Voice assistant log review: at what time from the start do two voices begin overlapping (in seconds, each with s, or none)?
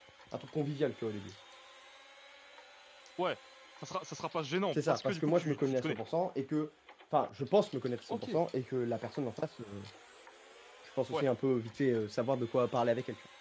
4.8 s